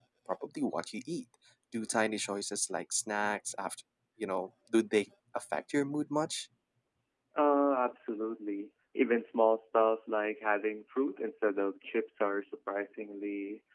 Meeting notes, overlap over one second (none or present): none